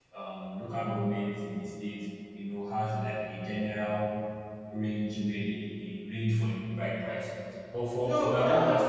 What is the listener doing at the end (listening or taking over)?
taking over